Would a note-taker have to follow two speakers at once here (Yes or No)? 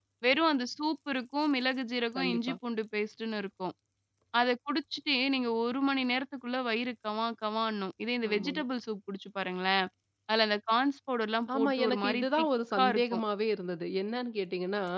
Yes